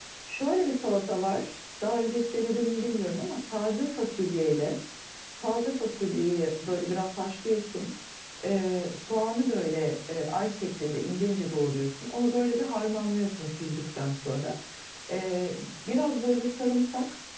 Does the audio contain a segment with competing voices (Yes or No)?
No